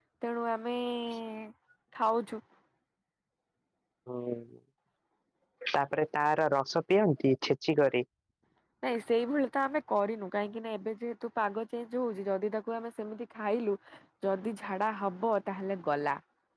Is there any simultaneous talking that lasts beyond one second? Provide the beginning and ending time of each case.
none

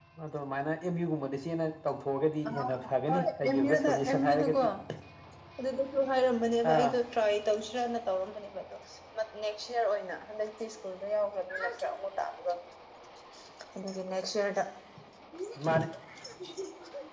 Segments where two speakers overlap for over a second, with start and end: 3.1-4.6

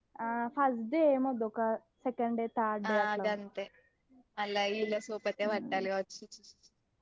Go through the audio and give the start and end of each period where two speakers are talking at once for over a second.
none

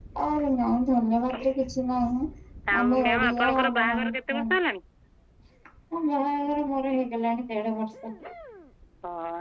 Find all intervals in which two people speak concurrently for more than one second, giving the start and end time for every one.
2.8-4.5

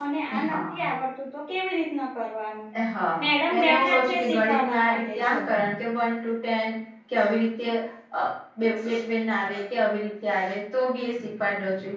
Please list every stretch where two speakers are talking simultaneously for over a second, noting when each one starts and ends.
3.2-5.4

